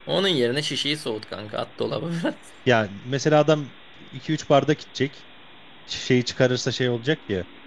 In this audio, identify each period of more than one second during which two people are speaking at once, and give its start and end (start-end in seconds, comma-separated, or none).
none